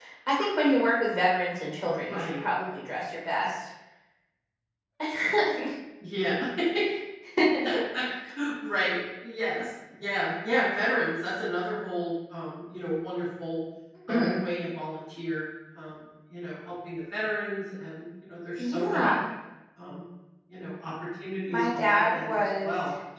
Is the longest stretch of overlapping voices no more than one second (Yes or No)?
No